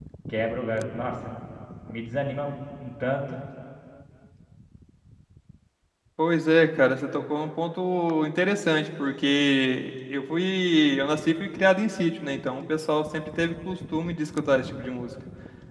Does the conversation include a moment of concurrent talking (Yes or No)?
No